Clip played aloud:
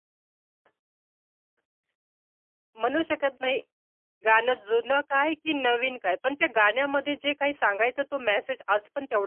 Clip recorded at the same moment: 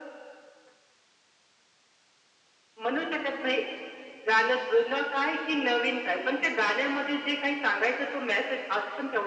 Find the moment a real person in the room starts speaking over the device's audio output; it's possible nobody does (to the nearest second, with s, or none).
none